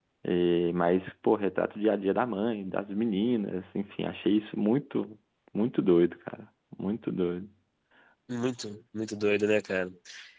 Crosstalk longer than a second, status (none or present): none